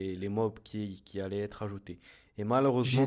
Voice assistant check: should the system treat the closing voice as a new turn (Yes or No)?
No